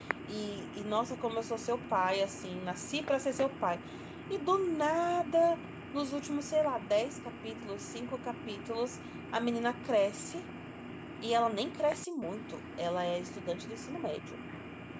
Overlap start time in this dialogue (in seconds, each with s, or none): none